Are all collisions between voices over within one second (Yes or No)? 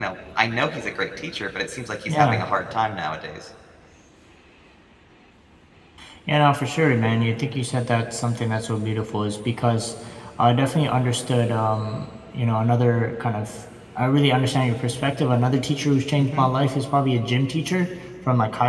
Yes